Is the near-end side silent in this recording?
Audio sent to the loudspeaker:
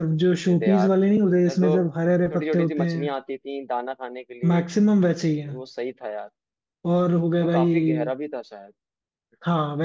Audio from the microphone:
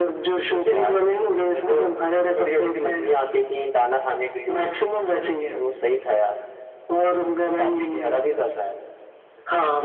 Yes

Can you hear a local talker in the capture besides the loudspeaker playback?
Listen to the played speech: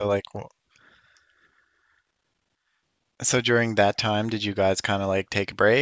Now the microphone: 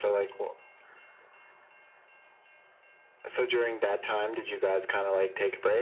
No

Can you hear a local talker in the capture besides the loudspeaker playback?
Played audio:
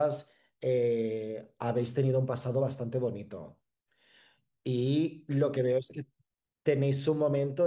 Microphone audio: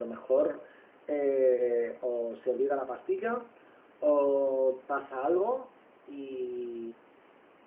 Yes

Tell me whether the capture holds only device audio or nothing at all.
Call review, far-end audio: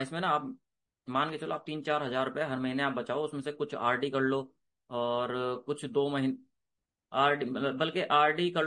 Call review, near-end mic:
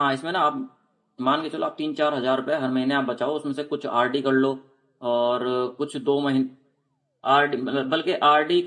Yes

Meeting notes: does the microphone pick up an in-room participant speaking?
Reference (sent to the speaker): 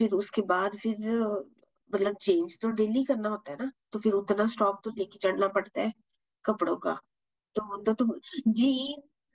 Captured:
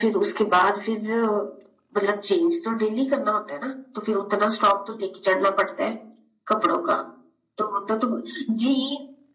No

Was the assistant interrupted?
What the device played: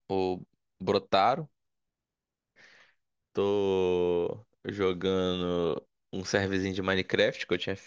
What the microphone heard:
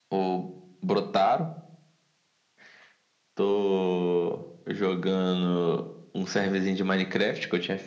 No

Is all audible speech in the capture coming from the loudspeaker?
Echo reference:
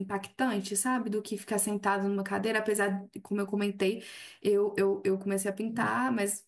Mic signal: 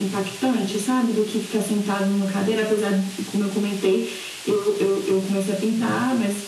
Yes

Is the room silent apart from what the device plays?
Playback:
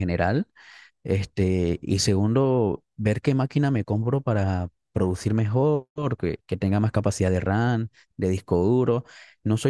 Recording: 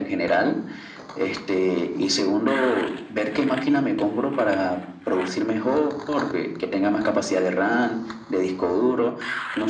Yes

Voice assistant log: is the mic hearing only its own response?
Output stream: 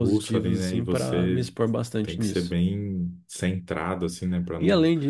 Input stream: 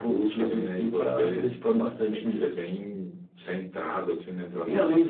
Yes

